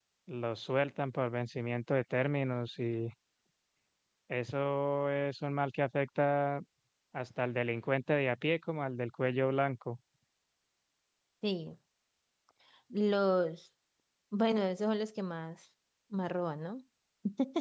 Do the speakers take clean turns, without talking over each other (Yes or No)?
Yes